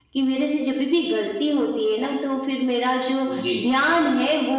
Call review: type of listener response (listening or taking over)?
listening